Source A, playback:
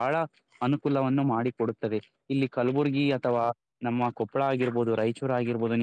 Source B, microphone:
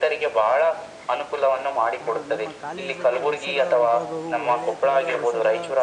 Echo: present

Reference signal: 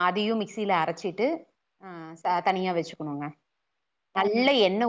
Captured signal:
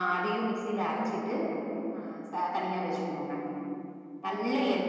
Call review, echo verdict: present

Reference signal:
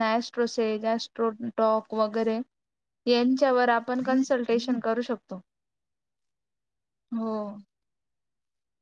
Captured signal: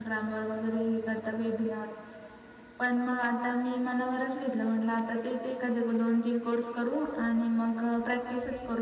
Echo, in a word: none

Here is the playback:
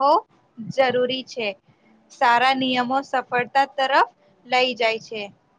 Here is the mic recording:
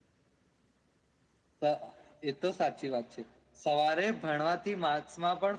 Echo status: none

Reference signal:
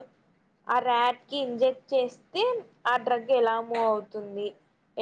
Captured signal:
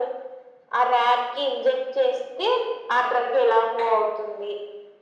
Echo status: present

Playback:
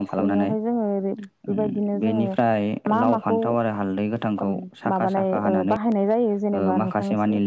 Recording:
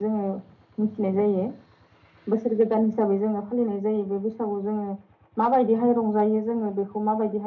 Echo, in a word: none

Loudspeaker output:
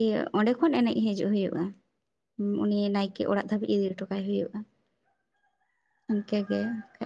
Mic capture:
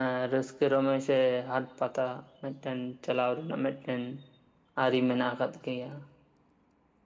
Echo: none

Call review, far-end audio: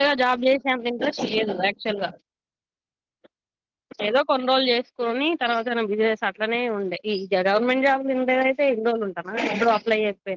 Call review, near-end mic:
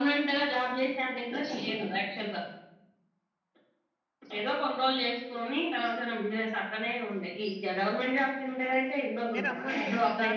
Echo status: present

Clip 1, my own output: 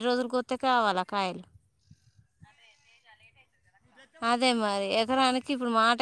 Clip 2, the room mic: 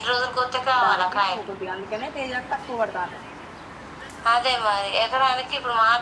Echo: present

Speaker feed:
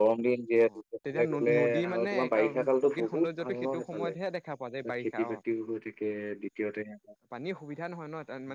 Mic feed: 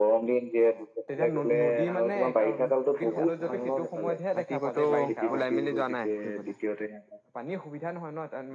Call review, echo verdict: present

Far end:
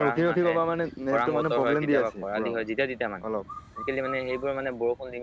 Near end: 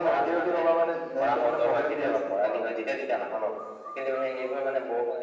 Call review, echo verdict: present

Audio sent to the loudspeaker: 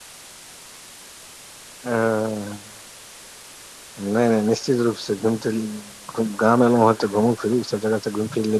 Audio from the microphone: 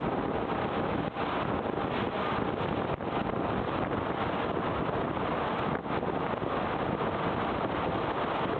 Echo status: none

